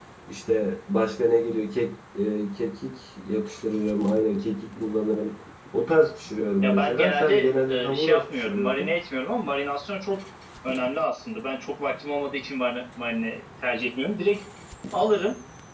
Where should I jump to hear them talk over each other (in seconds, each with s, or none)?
6.6 s